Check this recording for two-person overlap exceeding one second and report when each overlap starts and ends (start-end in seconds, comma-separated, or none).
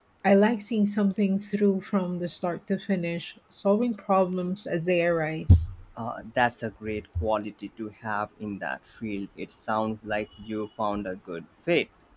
none